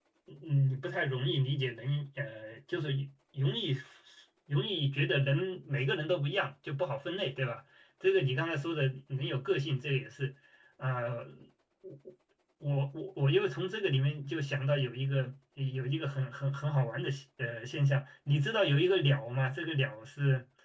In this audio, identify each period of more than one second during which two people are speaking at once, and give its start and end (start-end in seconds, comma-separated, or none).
none